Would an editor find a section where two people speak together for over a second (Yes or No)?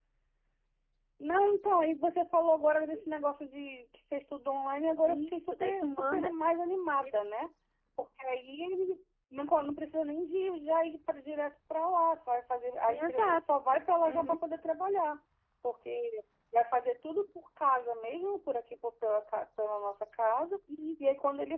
Yes